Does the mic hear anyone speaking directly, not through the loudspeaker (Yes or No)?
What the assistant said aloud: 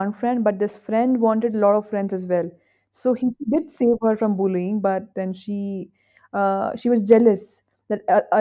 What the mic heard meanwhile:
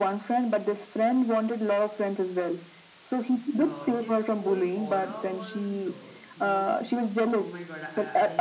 Yes